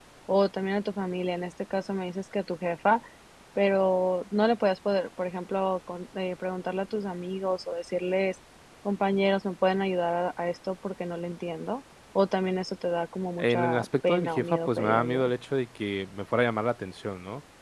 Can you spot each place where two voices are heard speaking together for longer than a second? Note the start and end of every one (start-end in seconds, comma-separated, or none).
13.4-15.3